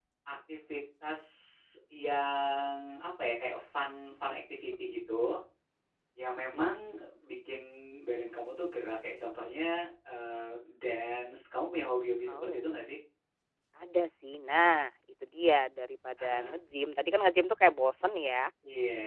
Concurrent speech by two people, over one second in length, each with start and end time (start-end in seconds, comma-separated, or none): none